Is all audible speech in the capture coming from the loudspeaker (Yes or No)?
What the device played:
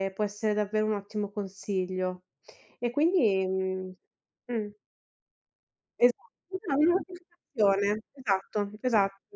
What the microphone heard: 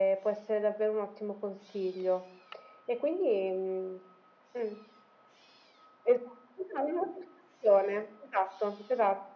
Yes